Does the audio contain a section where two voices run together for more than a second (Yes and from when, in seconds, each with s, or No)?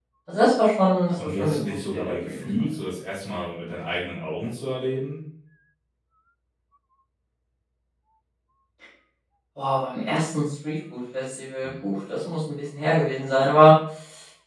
Yes, from 1.2 s